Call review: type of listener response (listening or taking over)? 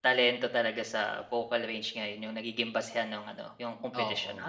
listening